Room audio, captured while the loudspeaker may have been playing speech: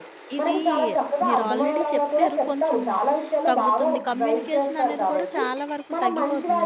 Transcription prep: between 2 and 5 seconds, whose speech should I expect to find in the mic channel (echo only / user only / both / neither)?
both